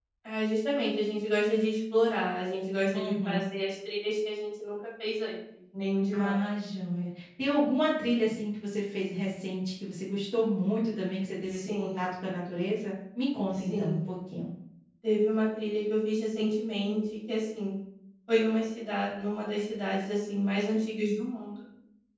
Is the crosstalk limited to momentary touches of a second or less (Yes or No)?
Yes